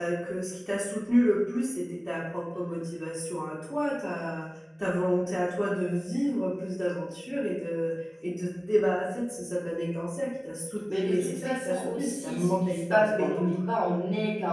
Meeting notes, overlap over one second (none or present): present